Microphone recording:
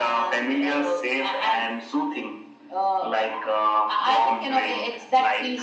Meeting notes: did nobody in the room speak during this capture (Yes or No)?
Yes